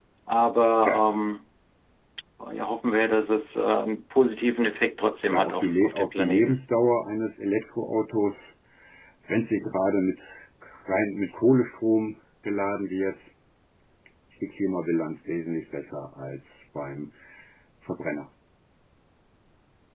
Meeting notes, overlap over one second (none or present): present